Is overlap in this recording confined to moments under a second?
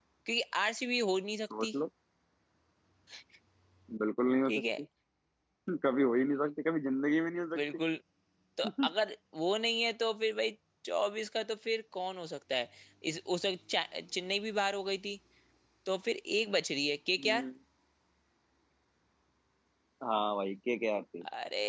Yes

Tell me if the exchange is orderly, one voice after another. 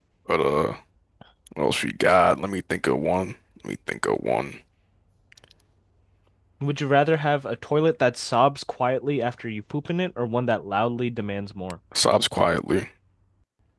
Yes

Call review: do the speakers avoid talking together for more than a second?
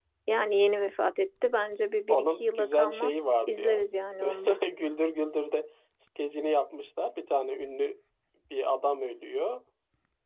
No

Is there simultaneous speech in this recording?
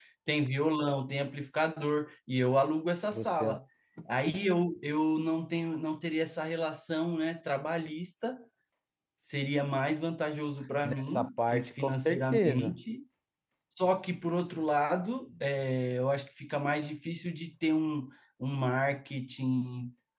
Yes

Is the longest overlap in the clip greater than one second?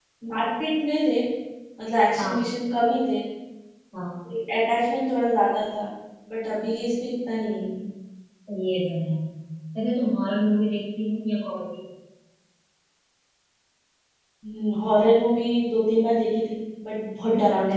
No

